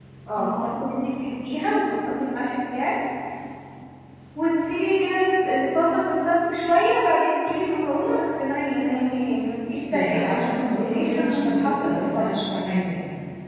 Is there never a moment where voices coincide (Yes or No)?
No